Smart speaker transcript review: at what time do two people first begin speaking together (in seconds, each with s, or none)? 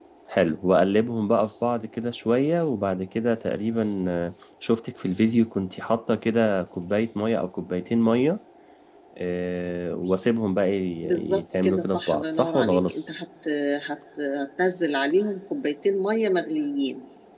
11.0 s